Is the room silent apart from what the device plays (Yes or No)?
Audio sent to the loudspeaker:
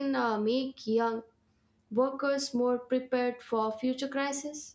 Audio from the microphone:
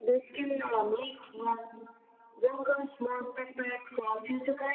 Yes